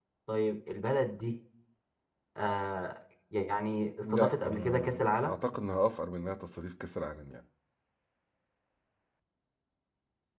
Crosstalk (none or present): present